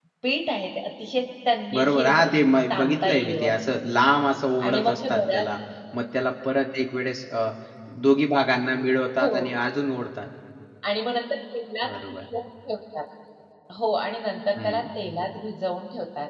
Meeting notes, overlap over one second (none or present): present